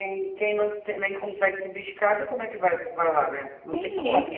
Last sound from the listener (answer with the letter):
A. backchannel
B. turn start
B